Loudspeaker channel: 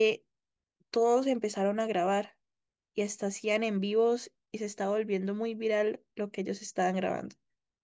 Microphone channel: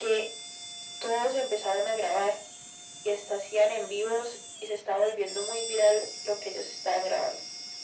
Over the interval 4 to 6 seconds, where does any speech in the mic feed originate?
echo only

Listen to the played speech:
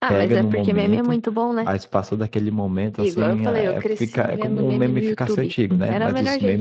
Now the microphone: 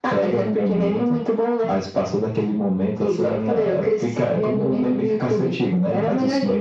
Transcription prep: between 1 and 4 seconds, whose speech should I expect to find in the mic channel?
echo only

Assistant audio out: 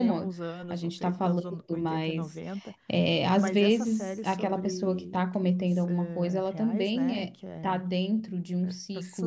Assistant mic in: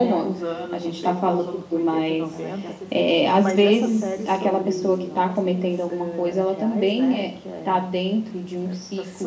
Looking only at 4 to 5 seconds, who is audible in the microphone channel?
both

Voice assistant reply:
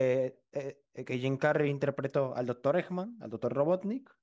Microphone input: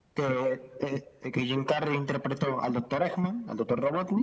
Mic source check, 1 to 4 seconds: echo only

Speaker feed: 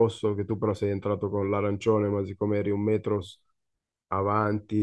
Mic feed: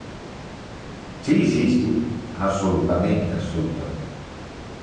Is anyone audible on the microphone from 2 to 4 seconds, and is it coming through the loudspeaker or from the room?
user only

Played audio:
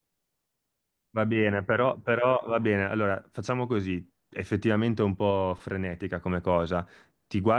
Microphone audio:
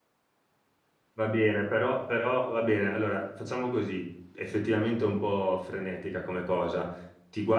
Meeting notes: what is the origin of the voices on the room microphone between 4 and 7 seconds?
echo only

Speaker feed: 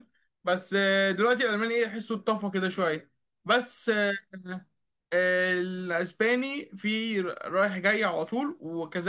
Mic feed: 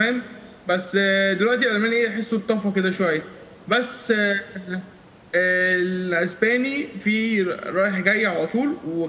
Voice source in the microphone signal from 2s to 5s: echo only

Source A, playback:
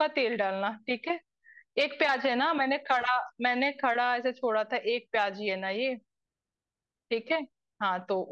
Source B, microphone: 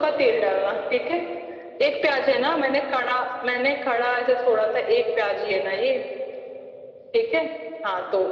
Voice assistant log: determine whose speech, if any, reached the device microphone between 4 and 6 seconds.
echo only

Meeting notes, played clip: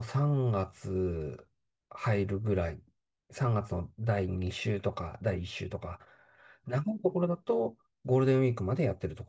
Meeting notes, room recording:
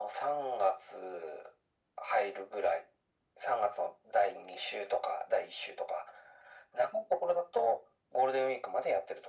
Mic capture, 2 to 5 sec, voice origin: echo only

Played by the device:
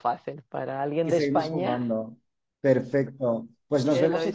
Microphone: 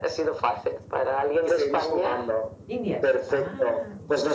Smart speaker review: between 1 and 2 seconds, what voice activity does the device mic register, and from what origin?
echo only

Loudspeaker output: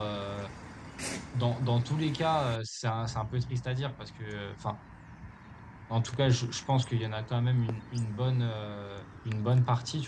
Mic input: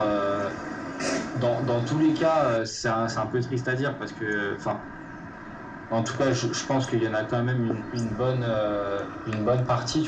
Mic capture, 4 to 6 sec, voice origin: echo only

